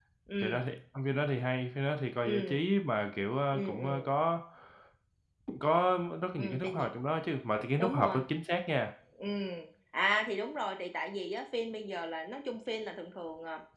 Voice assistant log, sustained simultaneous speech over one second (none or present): none